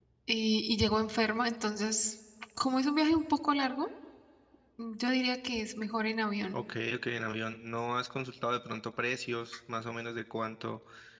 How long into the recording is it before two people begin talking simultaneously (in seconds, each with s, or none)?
none